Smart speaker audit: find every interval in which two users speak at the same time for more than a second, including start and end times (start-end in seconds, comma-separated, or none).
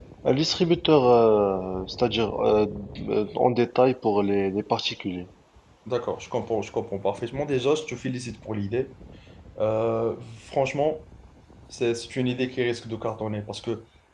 none